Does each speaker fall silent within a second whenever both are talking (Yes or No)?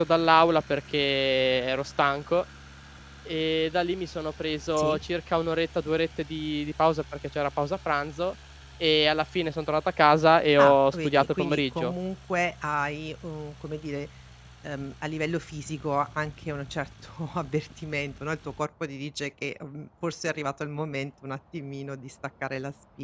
No